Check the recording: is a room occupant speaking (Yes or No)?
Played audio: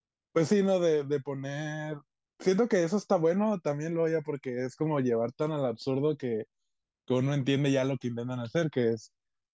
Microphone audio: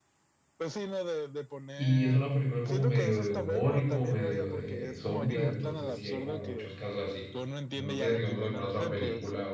Yes